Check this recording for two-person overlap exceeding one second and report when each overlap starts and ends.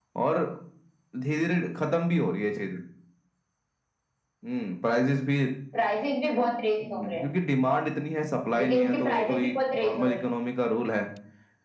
8.6-10.2

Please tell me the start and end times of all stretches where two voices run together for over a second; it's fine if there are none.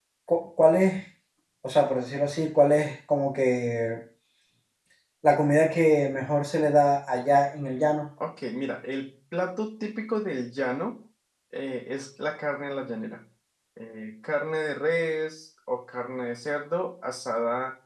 none

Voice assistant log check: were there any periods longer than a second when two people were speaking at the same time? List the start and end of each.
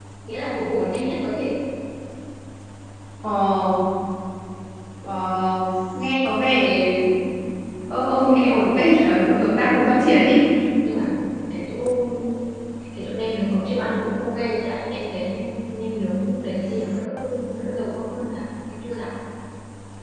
9.2-10.4

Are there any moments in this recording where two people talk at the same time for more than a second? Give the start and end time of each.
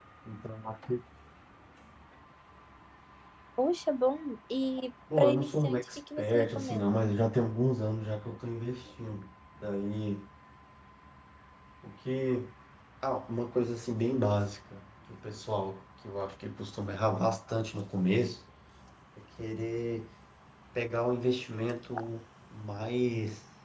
5.2-7.0

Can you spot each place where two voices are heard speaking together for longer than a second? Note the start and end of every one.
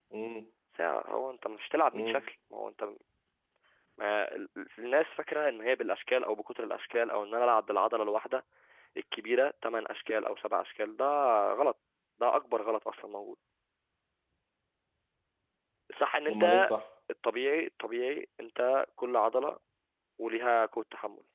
none

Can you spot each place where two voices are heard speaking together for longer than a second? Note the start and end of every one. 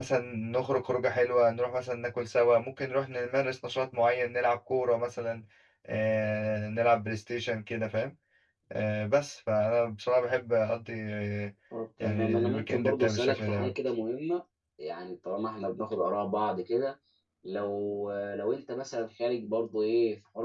12.0-13.7

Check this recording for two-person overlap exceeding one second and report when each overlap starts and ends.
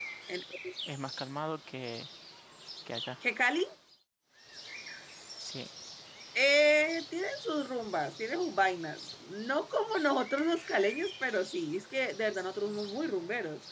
none

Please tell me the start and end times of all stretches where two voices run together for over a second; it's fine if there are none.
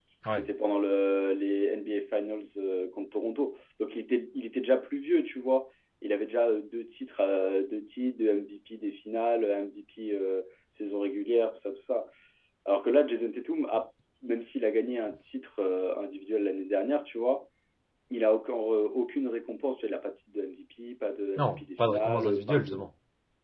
21.4-22.8

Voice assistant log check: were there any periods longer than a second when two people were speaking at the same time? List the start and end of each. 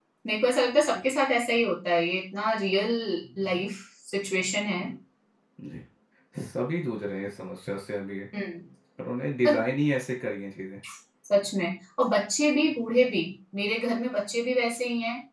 none

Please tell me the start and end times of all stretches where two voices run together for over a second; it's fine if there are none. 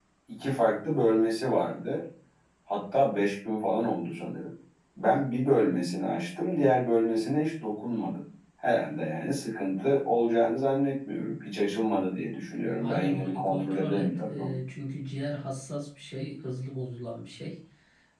12.8-14.6

